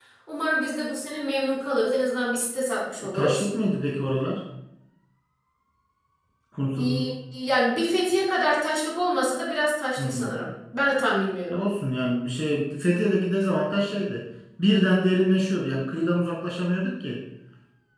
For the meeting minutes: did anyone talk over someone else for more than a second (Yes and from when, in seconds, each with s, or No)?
No